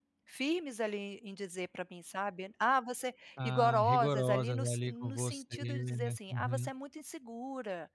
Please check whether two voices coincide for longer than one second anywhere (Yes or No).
Yes